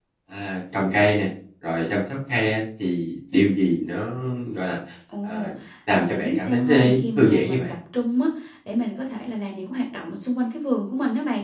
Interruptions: present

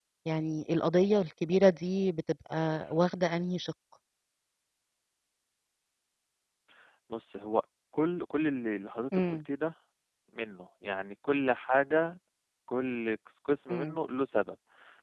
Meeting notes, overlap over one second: none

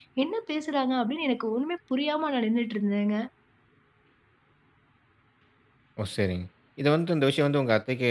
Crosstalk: none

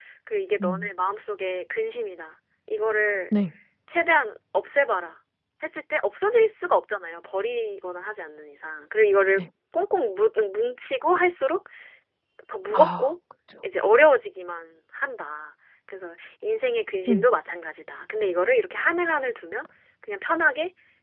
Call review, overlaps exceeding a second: none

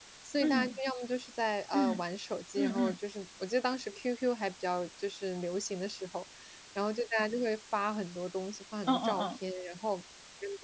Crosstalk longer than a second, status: none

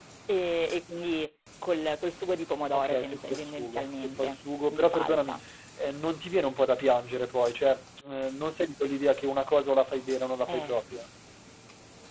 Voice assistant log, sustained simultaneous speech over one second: present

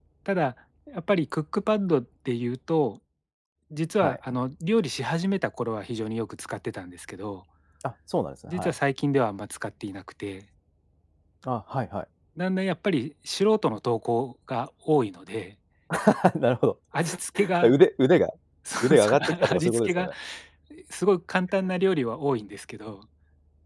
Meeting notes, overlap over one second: present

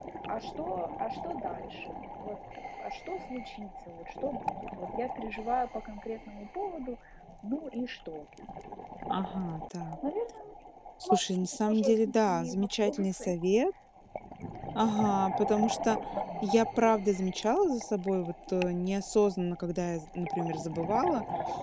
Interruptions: present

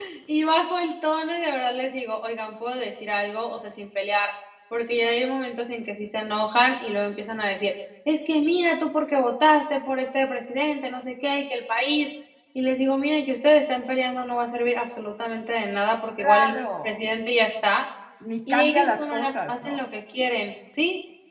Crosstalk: present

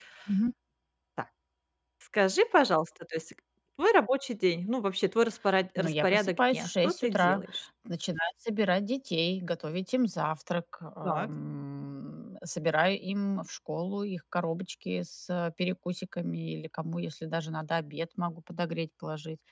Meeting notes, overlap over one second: present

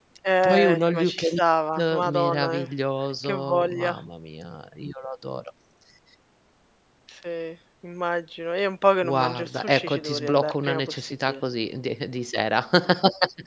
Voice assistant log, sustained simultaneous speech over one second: present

